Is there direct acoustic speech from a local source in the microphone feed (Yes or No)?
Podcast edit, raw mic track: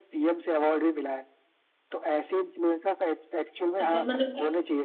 Yes